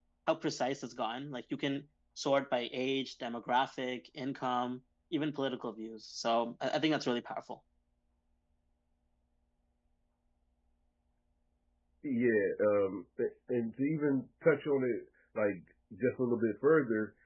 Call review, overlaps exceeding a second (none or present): none